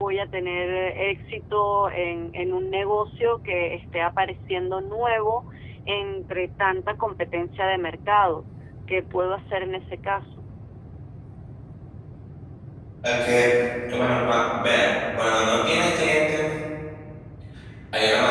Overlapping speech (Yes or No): No